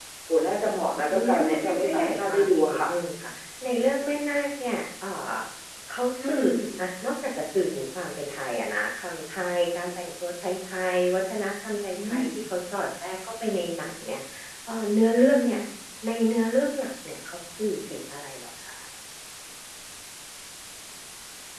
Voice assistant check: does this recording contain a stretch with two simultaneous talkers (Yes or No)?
Yes